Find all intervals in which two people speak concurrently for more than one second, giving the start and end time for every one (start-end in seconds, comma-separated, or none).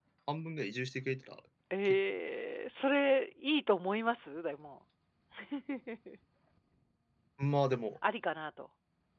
none